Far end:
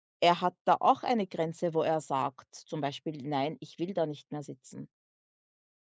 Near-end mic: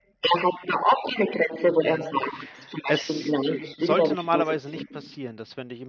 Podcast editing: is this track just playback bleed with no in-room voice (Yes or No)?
No